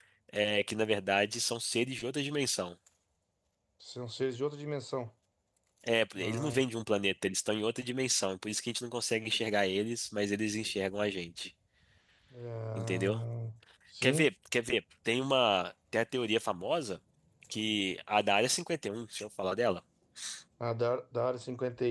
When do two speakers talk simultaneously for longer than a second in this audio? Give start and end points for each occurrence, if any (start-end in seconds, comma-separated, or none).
none